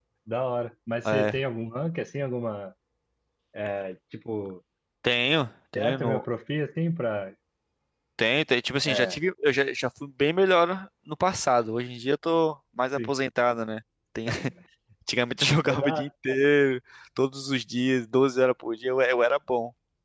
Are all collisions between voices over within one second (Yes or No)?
Yes